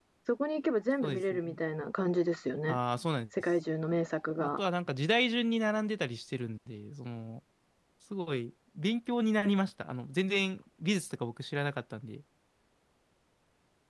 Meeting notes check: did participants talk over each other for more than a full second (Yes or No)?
No